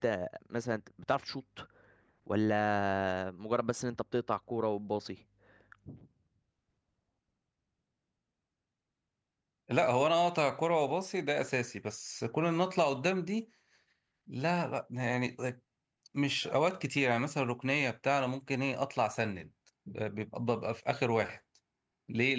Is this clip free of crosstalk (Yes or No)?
Yes